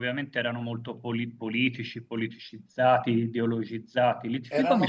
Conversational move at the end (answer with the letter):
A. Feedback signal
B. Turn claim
B